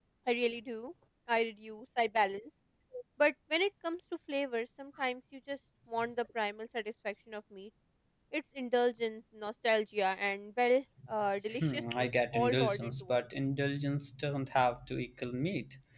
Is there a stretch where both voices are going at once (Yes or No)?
Yes